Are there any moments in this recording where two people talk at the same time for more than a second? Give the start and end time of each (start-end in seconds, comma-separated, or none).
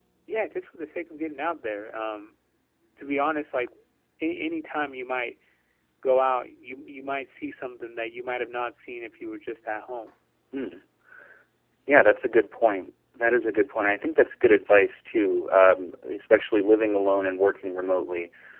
none